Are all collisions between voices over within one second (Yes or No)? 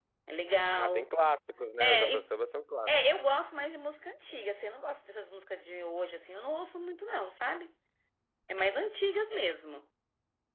Yes